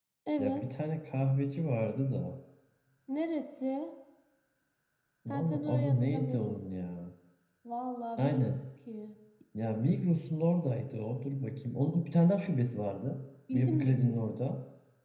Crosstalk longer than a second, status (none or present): present